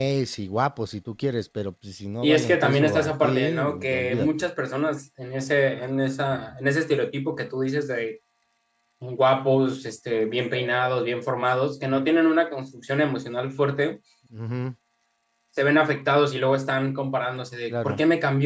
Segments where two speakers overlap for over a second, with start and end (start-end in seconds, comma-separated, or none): 2.2-4.3